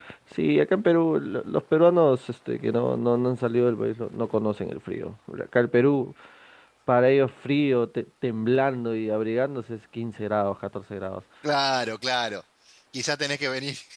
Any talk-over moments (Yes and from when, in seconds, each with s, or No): No